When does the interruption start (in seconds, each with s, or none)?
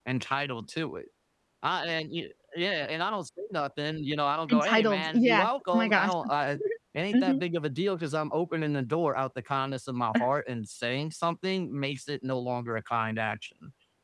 4.5 s